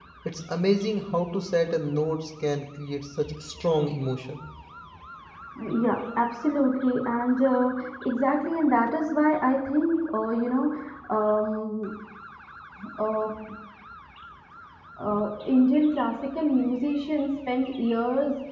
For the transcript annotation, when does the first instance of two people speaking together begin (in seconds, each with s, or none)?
none